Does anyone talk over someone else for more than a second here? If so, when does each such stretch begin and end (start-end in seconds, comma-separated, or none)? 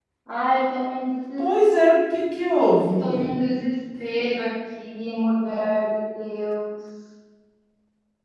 none